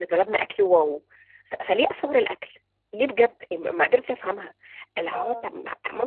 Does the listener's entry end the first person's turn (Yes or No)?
No